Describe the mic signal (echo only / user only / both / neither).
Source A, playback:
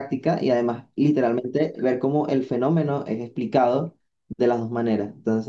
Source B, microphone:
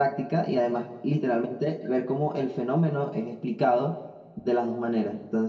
echo only